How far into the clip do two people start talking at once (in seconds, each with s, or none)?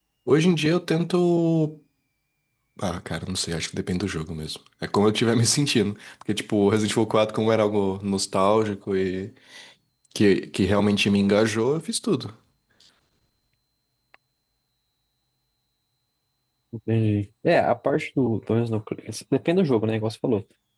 none